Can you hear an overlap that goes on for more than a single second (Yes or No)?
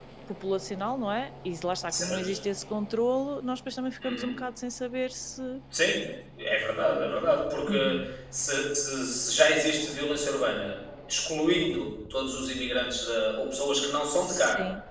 No